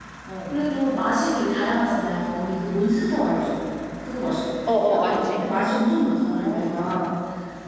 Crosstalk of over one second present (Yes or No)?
No